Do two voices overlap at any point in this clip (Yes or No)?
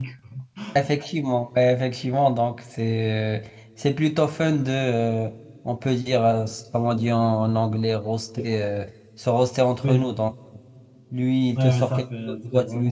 Yes